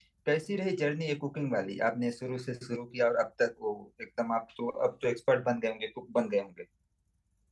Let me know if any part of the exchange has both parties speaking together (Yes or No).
No